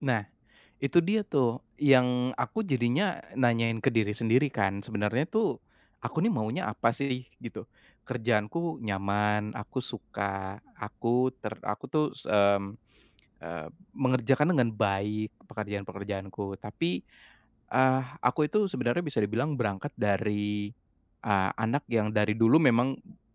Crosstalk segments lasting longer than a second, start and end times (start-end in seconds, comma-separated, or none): none